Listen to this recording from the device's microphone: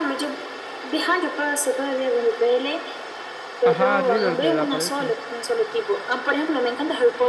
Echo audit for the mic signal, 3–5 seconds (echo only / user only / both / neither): both